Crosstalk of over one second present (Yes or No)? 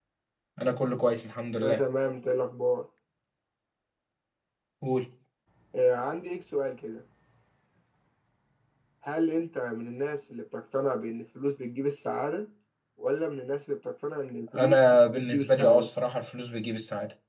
Yes